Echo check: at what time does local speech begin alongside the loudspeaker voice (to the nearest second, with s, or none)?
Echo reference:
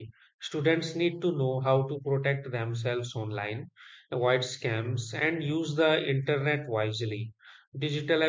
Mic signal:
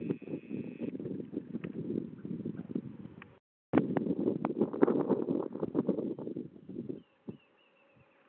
none